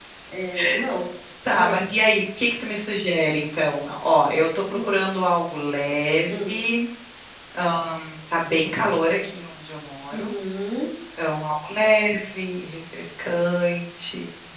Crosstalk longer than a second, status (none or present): none